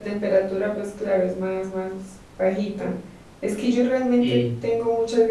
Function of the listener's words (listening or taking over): listening